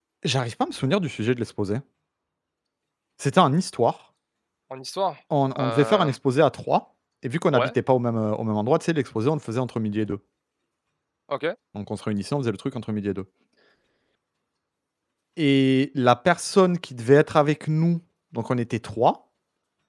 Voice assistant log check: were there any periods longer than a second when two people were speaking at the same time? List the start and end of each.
none

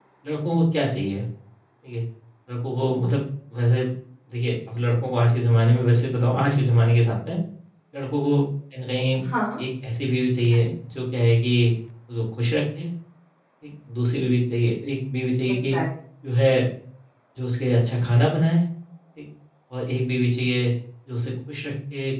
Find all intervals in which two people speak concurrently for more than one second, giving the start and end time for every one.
none

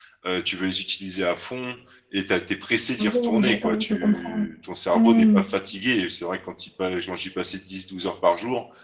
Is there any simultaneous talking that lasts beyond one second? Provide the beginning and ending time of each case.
3.0-4.5

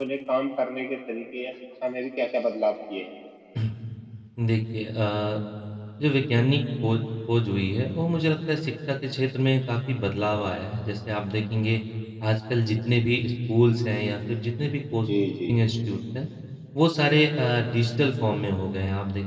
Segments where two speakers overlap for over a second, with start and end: none

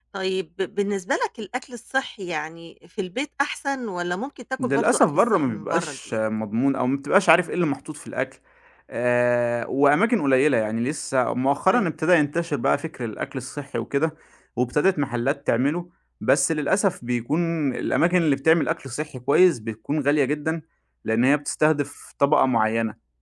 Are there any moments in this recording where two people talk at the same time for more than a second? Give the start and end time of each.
4.6-6.2

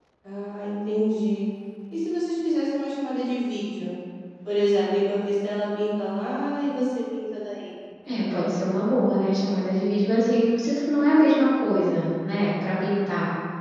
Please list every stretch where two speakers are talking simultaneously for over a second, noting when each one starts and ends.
none

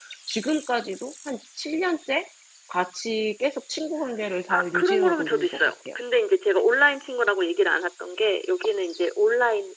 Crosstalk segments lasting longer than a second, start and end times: 4.5-5.7

